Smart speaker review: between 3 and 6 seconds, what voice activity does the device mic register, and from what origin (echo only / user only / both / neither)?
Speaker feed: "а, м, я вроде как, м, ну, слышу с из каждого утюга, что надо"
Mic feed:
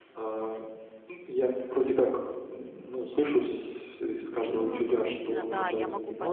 both